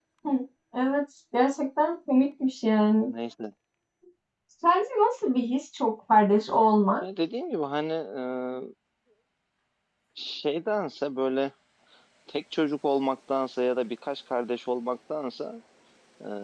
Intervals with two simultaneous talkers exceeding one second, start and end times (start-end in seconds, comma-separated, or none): none